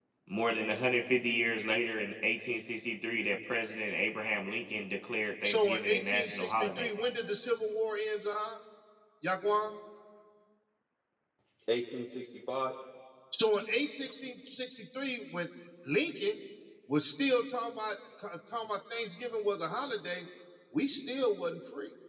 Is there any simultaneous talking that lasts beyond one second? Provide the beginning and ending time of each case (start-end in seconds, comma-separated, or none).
5.4-6.9